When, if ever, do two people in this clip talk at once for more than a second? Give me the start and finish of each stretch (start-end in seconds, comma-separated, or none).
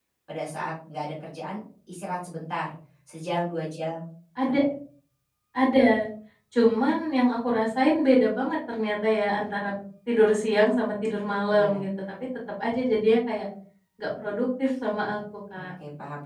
none